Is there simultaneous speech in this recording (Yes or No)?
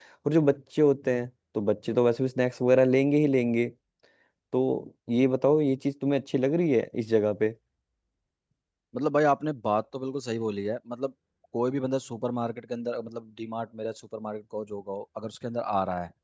No